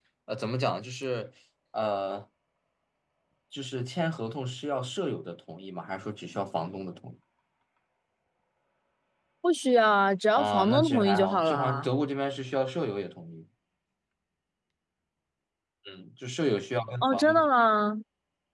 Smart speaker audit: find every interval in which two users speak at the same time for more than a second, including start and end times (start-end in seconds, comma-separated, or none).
10.3-11.9